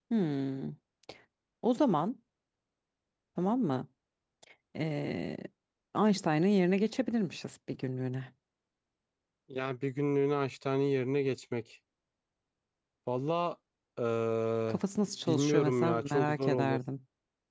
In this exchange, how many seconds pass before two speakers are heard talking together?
15 s

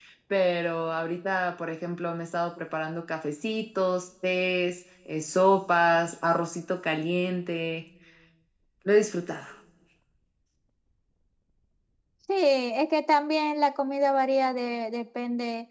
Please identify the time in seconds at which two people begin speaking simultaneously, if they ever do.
none

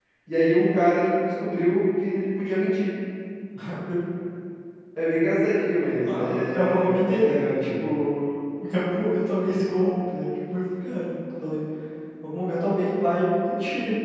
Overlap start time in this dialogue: 6 s

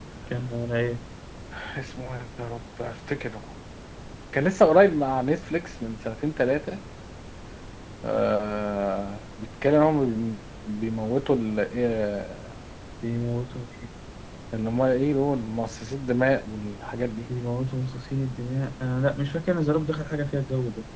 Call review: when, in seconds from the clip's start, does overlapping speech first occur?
none

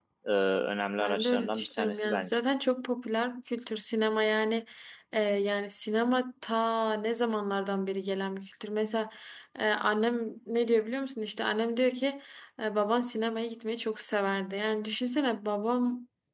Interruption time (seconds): 1 s

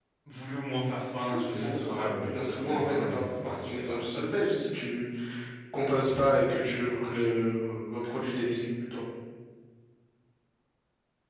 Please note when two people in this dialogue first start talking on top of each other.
1 s

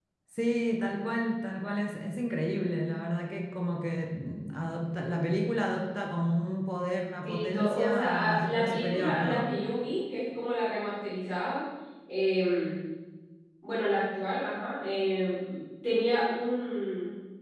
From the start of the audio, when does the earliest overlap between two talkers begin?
7 s

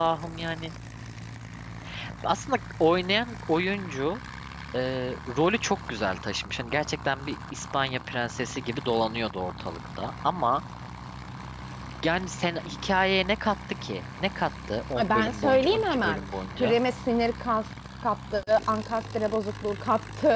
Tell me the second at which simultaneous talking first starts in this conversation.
15 s

